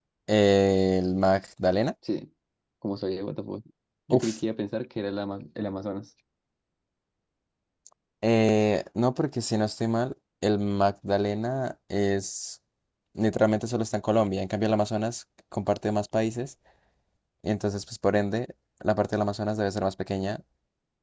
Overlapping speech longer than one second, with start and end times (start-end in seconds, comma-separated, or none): none